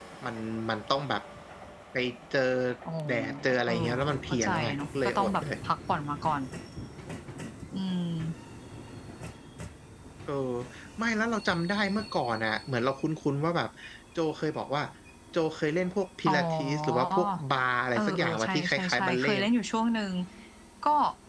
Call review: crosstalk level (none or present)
present